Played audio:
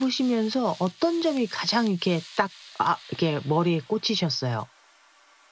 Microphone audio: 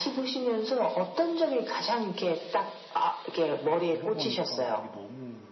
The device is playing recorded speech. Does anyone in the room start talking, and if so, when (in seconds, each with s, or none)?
3.4 s